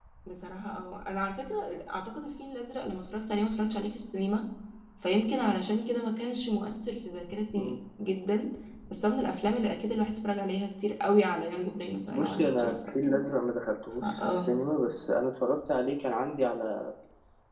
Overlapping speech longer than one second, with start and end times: 12.0-13.2

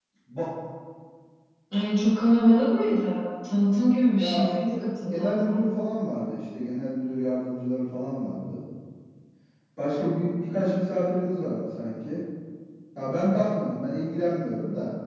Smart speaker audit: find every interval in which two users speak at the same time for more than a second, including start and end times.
4.1-5.3

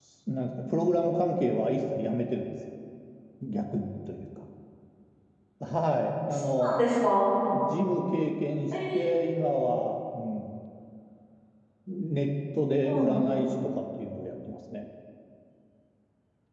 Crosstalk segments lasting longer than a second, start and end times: none

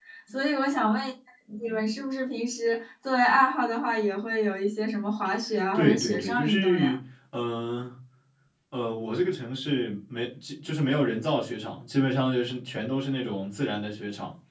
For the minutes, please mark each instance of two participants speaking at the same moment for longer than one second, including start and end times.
5.7-7.0

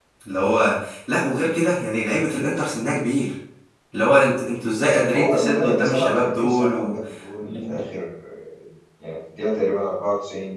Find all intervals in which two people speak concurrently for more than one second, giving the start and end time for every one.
5.1-7.0

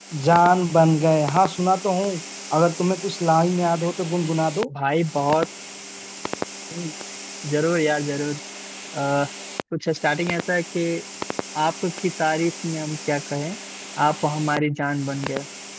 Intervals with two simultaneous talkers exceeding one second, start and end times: none

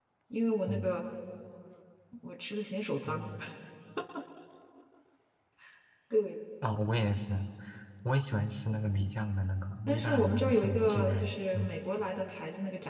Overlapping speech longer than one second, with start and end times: 9.9-11.7

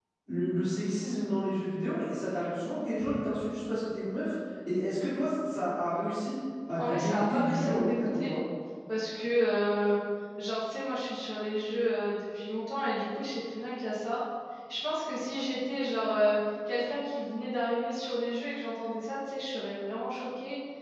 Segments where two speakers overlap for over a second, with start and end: 6.8-8.3

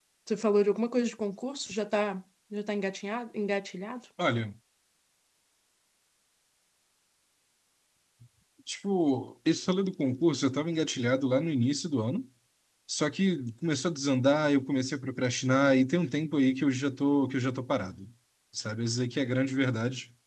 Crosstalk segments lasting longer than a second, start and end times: none

